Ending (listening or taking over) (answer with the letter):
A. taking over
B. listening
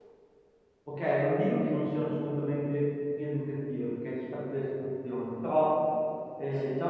B